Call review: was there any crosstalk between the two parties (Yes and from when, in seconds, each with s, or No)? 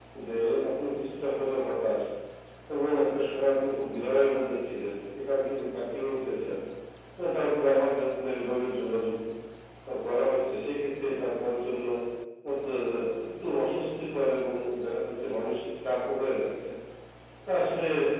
No